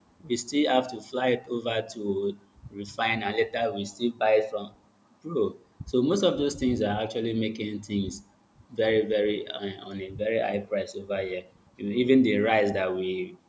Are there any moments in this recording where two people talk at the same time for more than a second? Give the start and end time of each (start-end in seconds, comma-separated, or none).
none